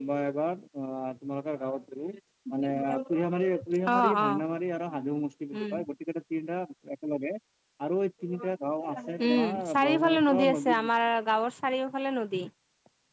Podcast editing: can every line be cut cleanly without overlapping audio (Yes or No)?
No